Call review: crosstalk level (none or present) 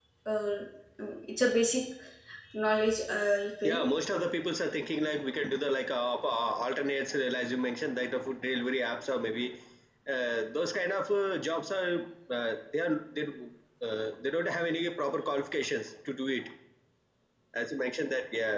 none